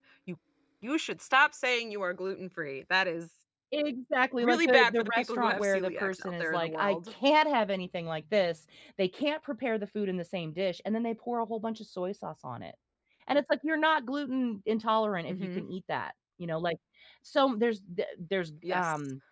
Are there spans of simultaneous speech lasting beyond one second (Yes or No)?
Yes